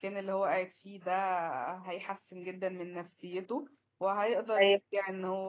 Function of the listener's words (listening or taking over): listening